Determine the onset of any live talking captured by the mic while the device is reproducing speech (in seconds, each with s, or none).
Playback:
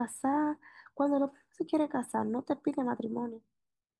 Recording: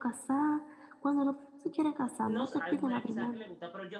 2.2 s